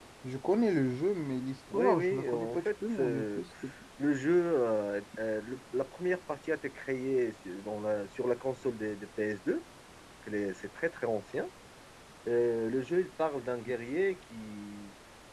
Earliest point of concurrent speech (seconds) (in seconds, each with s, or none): 1.7 s